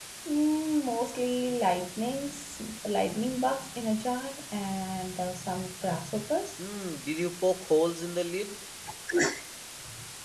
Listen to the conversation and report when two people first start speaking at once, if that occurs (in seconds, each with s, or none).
none